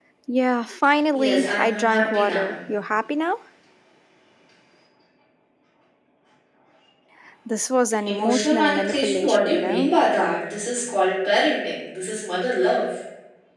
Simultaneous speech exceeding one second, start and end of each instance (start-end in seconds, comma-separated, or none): 1.1-2.6, 8.1-9.9